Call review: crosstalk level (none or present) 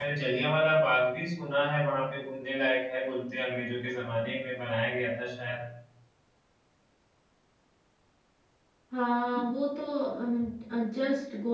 none